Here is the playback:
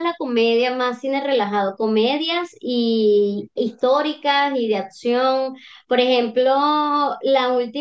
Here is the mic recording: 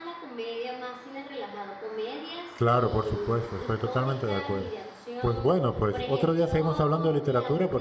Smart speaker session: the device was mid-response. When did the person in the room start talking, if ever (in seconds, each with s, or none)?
2.5 s